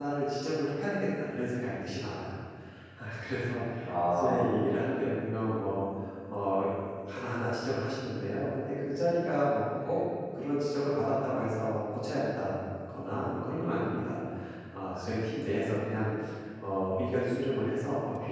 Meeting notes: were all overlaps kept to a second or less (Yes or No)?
Yes